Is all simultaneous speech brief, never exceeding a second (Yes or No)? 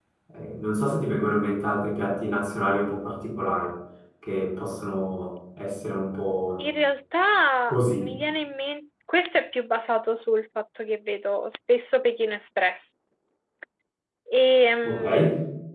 Yes